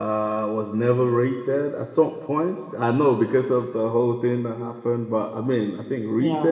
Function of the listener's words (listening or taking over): listening